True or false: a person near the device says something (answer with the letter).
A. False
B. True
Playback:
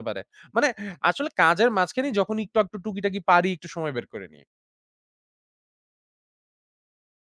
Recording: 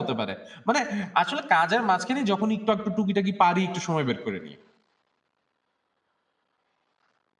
A